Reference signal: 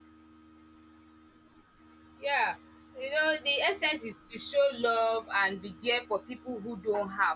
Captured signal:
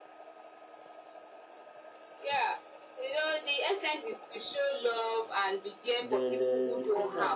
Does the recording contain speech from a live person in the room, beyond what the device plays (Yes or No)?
Yes